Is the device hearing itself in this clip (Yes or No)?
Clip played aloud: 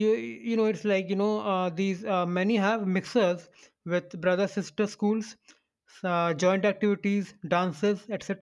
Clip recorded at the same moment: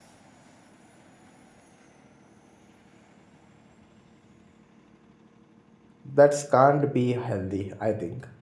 No